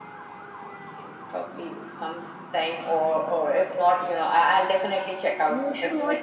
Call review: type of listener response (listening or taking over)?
taking over